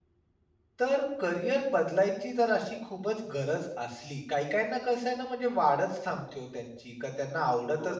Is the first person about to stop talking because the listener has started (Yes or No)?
No